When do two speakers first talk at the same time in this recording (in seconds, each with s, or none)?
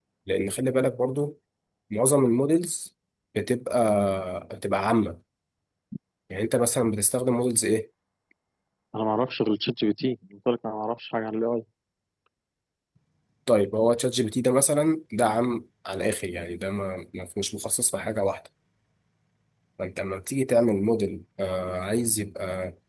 none